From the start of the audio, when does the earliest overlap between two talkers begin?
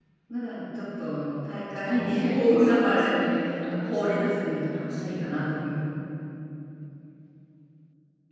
2 s

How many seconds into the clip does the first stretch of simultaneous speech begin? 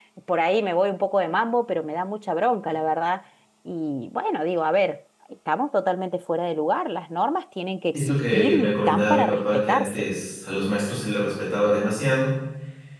8 s

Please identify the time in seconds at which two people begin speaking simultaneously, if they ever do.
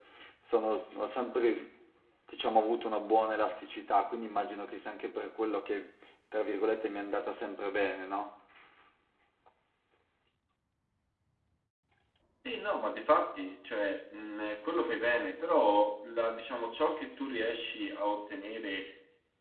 none

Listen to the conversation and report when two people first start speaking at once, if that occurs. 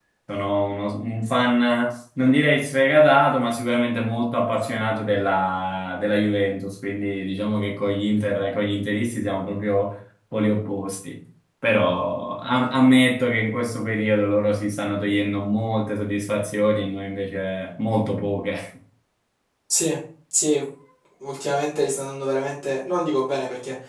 none

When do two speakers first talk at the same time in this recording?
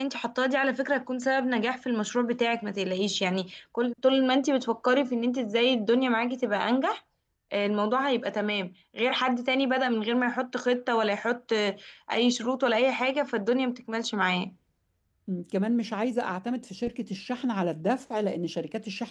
none

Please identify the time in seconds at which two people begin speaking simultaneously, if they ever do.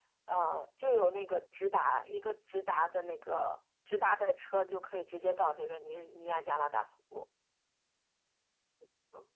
none

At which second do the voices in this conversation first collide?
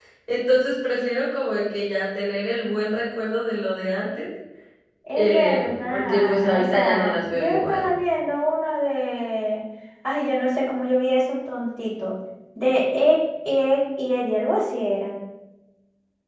5 s

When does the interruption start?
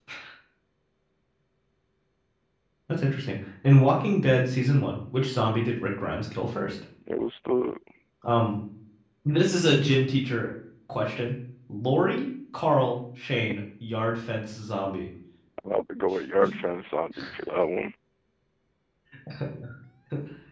none

